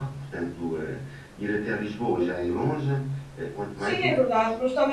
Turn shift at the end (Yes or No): Yes